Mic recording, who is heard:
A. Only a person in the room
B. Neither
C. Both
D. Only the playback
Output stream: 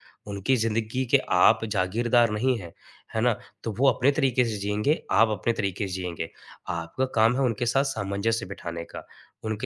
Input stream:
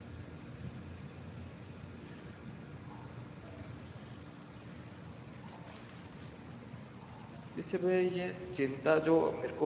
A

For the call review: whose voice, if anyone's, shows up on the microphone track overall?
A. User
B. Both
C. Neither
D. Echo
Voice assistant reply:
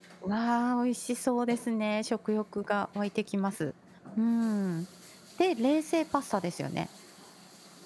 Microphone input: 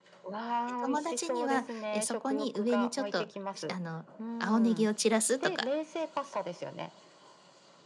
B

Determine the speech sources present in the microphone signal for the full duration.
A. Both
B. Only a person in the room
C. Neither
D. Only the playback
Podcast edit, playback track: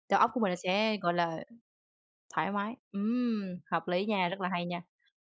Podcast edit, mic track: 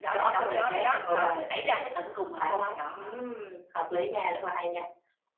A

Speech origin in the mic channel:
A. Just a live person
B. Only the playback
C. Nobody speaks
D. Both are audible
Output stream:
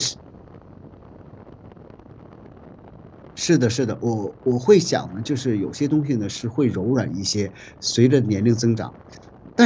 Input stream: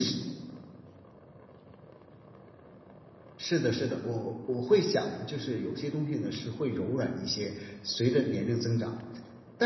B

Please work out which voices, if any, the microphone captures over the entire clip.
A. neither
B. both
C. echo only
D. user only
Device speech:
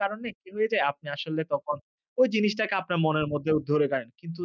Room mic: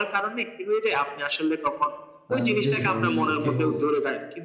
B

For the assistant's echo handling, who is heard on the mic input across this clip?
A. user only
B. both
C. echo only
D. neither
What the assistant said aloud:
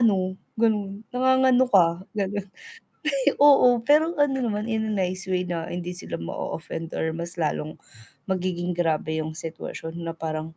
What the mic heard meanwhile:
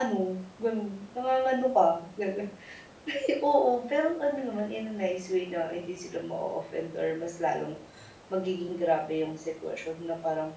C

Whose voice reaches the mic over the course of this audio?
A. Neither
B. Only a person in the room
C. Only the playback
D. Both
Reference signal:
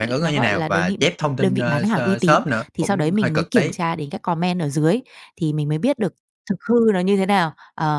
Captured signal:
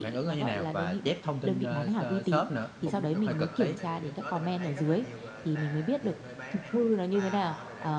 D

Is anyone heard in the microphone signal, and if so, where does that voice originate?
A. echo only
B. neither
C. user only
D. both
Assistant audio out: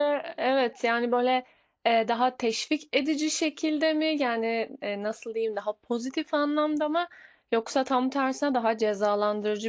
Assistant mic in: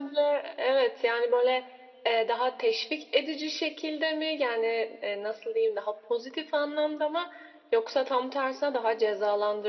A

